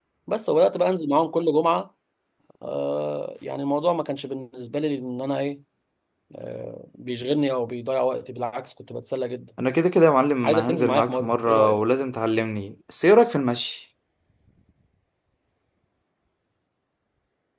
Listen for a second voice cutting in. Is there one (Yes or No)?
Yes